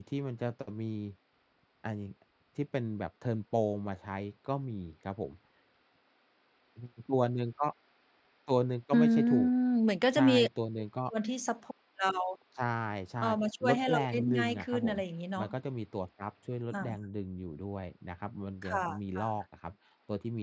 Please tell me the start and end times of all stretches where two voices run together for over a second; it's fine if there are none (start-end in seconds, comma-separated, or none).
13.2-15.0